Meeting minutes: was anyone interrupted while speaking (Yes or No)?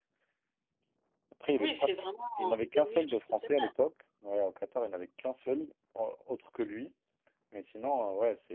Yes